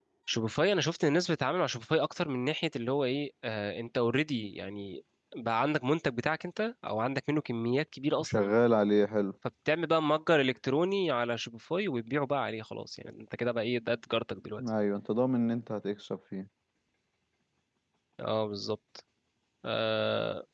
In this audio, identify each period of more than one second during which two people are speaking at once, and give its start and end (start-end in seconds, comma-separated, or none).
none